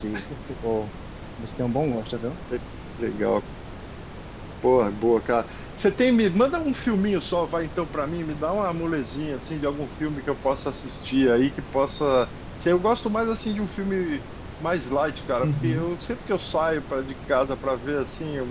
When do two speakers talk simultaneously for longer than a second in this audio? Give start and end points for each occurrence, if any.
none

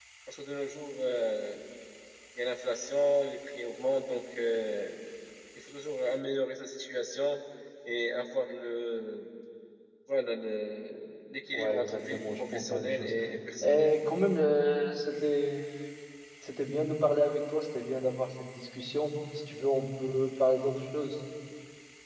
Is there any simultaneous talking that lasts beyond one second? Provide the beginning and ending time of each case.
11.5-13.1

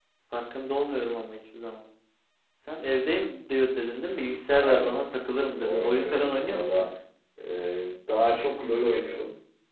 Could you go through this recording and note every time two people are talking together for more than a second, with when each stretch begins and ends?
5.6-6.9

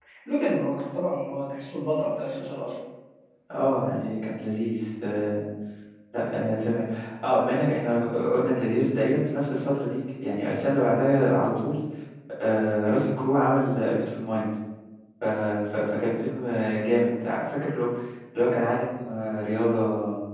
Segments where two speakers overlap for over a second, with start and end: none

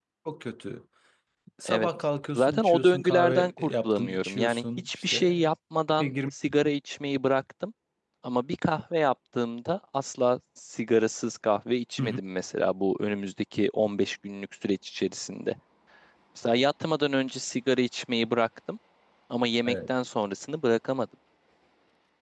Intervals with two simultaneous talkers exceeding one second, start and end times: 2.4-5.5

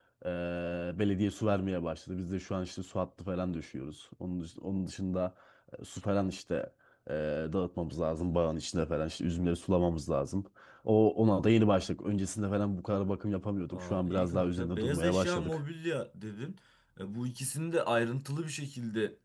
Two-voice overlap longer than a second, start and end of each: 13.7-15.6

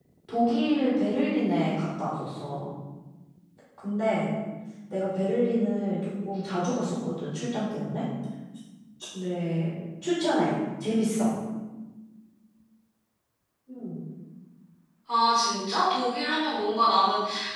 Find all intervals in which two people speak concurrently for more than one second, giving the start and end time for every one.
none

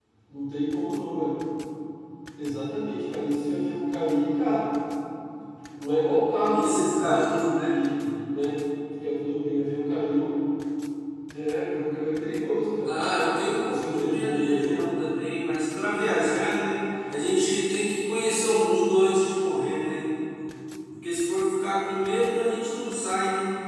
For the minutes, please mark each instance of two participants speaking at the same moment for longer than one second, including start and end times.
6.5-7.7, 12.8-14.8

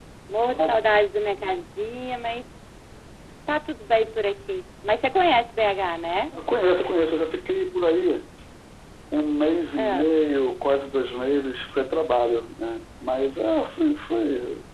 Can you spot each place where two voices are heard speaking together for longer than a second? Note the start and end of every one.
none

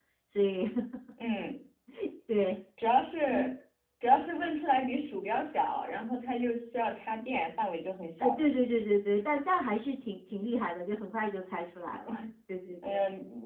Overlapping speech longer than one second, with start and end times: none

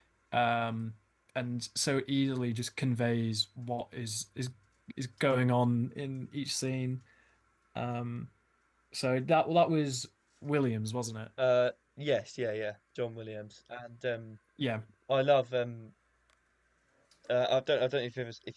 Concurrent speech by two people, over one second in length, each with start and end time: none

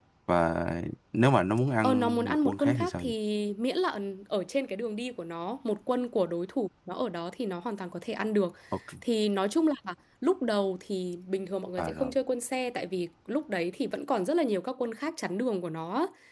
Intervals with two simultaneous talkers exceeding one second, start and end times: 1.8-3.1

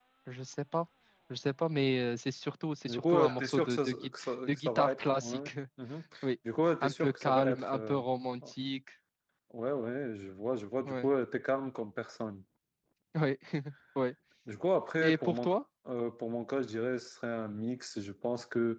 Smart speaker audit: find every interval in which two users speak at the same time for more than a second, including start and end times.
2.9-5.5, 6.8-8.0

